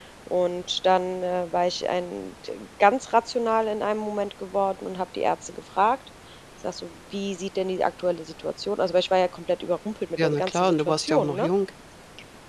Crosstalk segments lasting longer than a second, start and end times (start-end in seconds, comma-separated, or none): 10.2-11.5